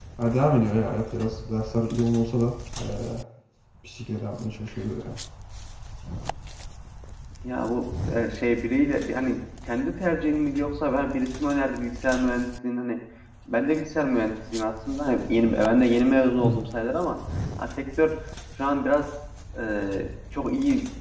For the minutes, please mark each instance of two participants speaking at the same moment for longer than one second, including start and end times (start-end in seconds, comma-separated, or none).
none